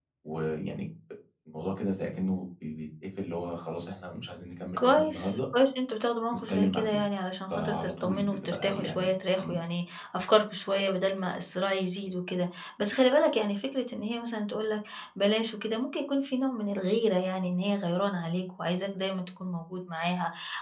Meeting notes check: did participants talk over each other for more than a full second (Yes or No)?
Yes